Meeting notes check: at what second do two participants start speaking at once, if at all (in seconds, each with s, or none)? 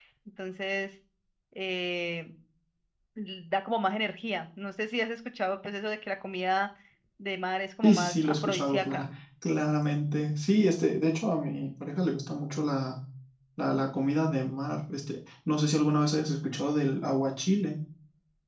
7.8 s